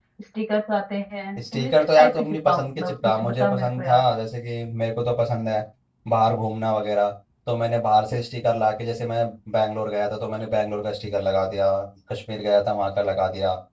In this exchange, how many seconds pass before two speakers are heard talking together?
1 s

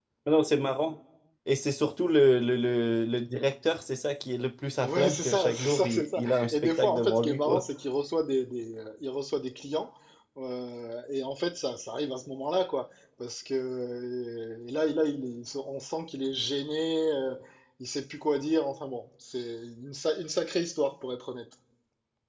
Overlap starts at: 5 s

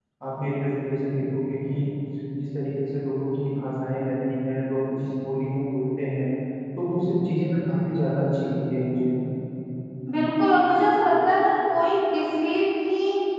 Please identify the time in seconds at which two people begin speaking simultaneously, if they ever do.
none

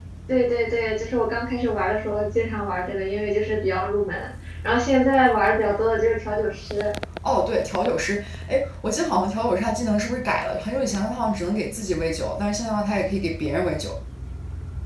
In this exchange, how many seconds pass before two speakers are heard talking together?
none

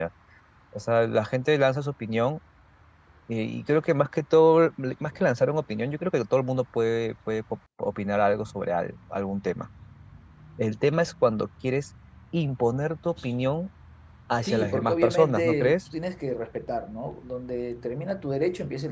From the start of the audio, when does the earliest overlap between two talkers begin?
14 s

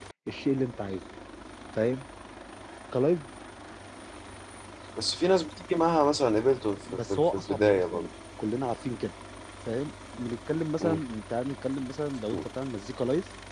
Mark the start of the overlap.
7 s

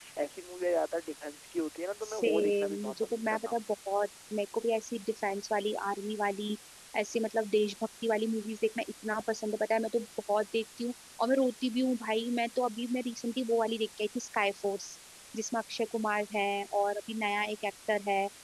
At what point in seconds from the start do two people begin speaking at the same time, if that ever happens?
2 s

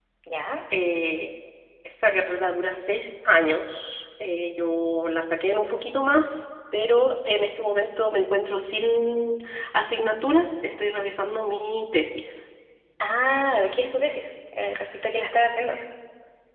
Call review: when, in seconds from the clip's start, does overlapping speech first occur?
none

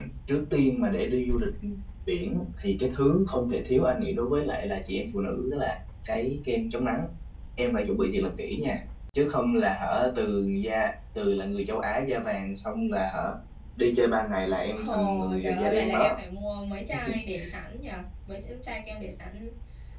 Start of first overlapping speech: 15 s

